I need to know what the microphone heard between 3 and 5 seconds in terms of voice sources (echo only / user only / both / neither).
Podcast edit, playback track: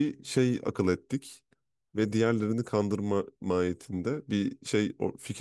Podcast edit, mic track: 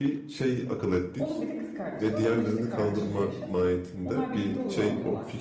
both